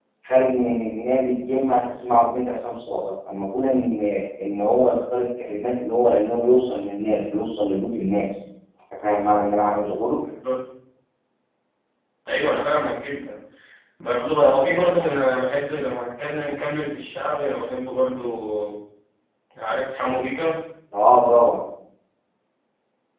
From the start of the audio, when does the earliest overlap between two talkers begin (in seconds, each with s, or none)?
none